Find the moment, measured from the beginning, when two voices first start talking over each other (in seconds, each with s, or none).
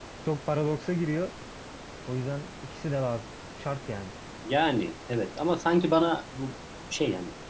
none